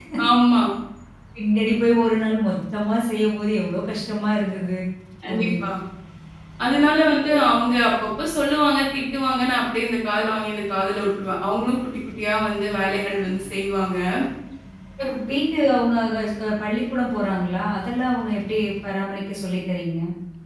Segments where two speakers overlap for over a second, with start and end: none

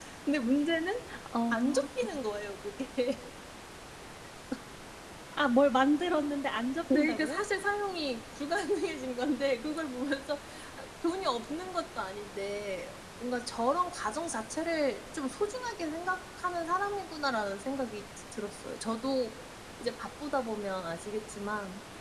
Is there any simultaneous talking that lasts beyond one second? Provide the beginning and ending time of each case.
none

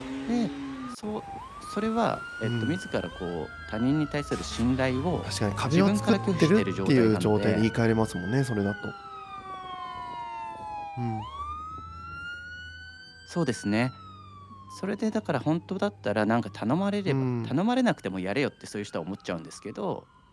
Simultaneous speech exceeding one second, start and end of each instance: 5.7-7.7

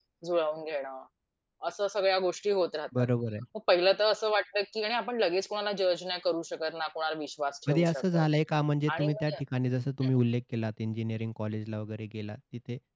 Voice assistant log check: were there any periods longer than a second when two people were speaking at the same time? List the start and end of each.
none

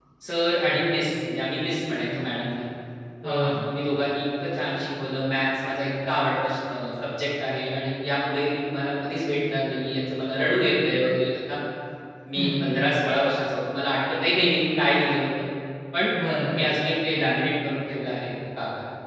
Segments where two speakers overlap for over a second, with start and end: none

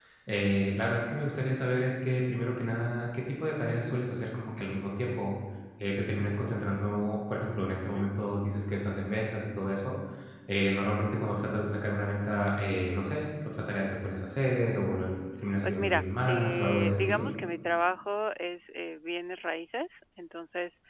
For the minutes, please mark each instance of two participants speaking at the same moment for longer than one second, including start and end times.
15.6-17.3

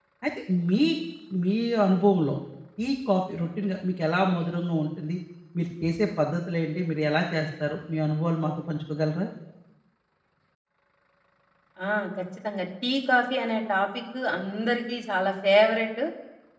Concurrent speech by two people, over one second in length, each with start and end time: none

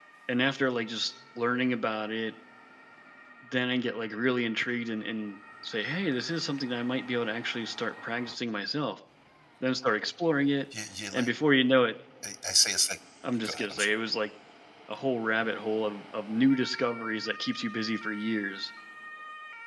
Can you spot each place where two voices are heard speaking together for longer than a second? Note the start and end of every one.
none

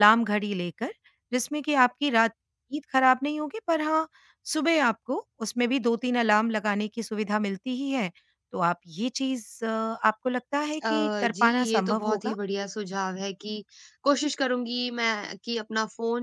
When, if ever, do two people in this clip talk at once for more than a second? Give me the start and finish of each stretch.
10.9-12.3

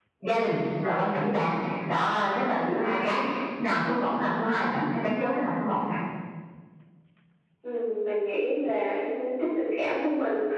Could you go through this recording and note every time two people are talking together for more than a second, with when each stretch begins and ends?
none

